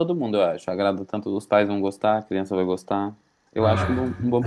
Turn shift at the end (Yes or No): No